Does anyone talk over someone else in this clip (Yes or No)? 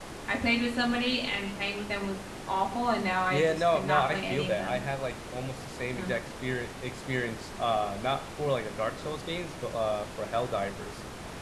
Yes